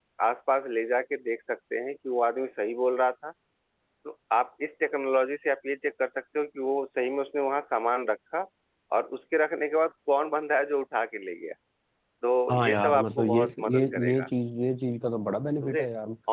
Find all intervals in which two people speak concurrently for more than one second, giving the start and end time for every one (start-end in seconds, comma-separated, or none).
12.7-14.3